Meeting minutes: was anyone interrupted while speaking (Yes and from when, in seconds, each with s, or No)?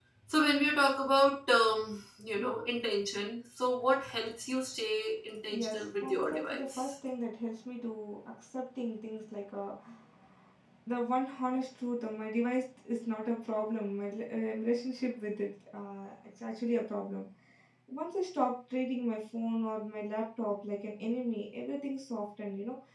Yes, from 5.5 s